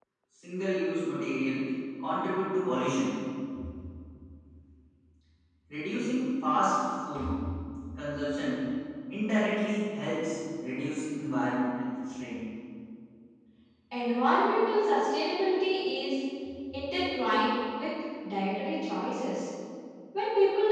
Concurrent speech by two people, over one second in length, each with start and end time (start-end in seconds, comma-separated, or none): none